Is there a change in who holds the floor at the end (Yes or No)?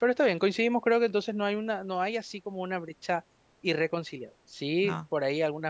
No